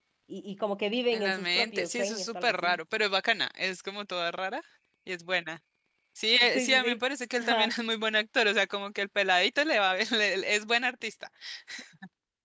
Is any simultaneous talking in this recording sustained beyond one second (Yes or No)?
Yes